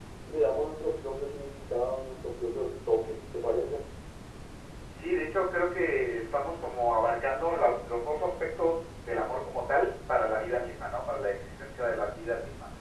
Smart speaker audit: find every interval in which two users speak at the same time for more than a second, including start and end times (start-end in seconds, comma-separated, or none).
none